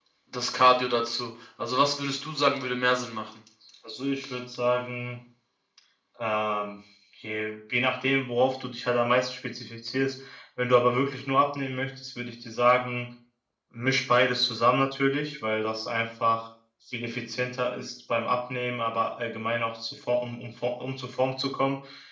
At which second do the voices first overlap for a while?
none

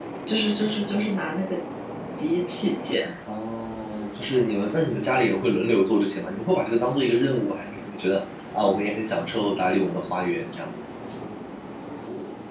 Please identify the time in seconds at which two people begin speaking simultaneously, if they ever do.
none

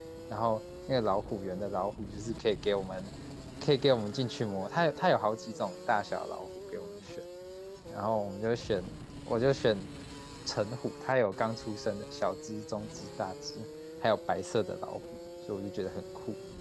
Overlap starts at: none

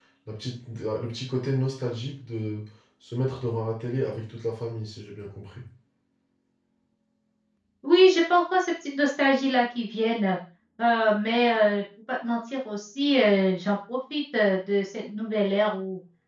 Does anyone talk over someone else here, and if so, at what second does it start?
none

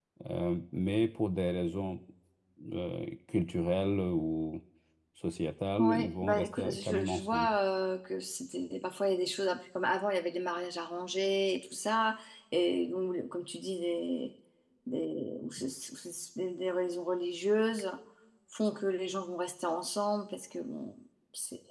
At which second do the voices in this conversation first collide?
5.8 s

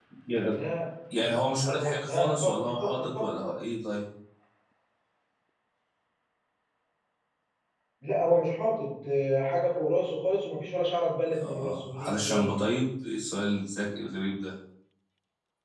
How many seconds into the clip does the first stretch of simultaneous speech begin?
1.1 s

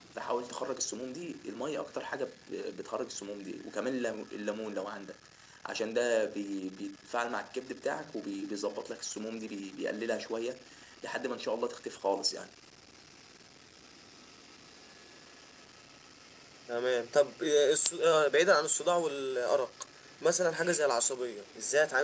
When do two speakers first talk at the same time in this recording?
none

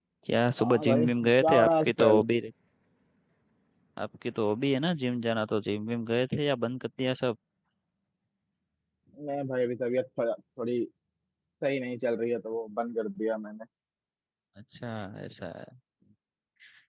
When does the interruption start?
0.6 s

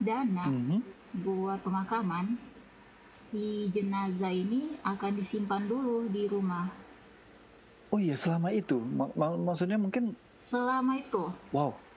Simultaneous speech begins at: none

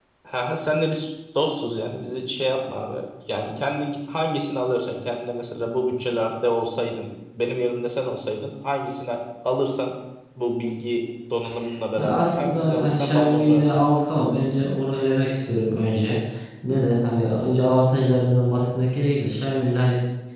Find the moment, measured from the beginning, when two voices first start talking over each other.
12.0 s

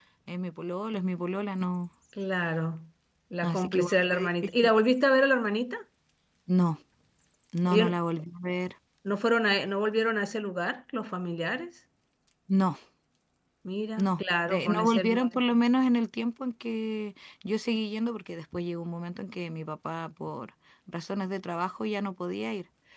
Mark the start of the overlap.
3.4 s

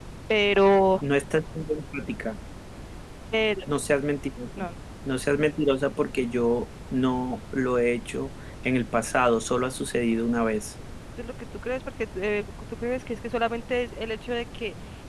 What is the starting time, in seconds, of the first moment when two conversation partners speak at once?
none

